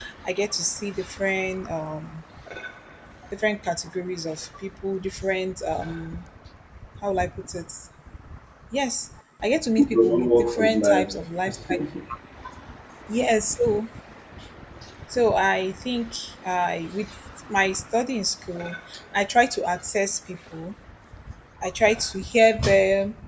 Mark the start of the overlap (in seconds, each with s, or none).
9.8 s